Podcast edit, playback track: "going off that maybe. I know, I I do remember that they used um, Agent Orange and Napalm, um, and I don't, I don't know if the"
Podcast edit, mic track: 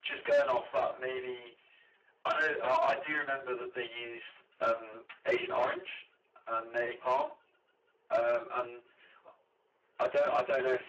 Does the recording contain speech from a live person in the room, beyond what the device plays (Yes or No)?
No